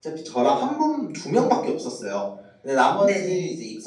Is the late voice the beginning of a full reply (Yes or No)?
No